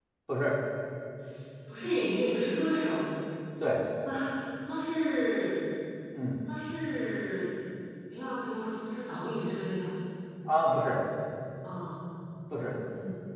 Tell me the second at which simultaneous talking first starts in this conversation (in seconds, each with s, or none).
none